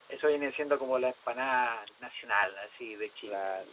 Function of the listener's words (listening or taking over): taking over